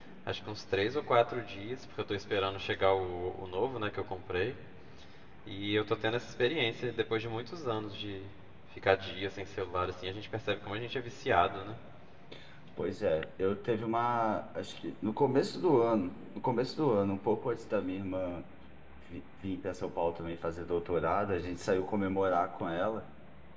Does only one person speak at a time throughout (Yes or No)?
Yes